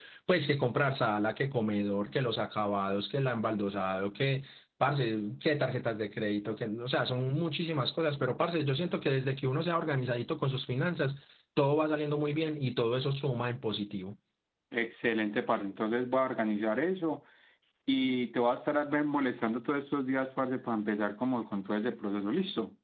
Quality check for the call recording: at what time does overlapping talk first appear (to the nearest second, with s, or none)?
none